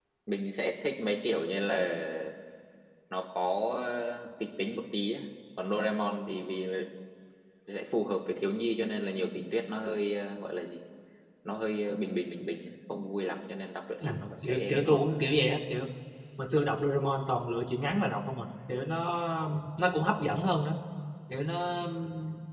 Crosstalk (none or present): present